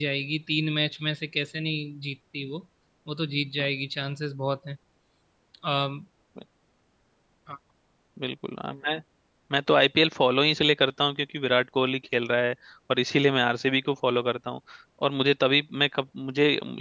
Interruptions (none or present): none